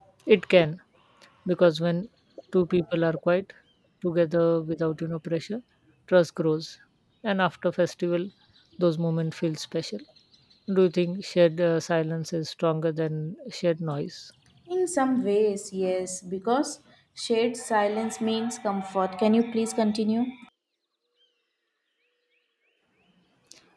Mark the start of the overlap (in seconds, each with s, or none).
none